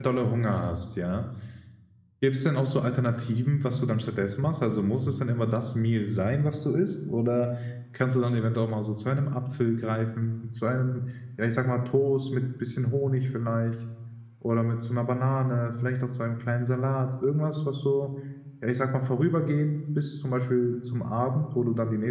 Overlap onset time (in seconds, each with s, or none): none